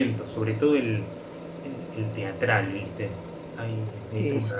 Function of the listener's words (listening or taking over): listening